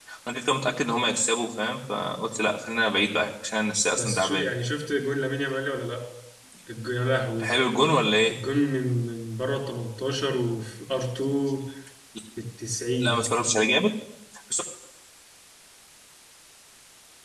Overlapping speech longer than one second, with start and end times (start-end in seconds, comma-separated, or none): none